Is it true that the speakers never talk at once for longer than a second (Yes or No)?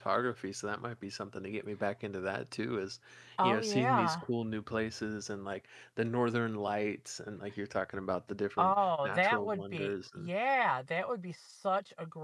No